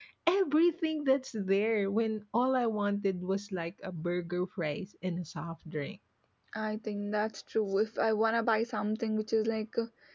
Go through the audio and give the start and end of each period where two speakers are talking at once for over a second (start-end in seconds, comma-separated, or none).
none